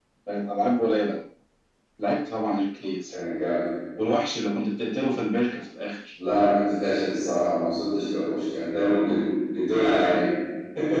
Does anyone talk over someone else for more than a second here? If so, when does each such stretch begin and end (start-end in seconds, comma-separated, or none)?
none